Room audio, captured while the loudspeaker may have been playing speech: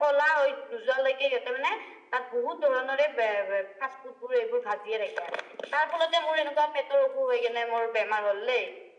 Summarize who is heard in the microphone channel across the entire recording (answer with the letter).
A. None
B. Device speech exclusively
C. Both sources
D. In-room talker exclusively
B